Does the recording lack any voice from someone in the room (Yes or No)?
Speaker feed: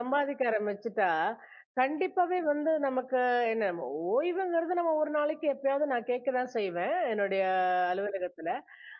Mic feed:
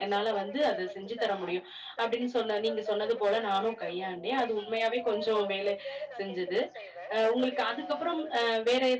No